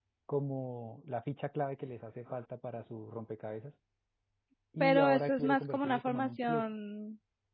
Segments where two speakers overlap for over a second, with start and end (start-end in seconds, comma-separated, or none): 4.8-6.7